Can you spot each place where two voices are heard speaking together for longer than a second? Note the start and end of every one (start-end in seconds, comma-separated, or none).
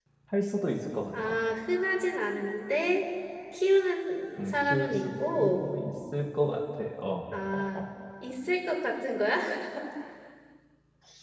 4.4-5.7